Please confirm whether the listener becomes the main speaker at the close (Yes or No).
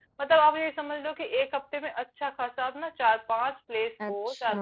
No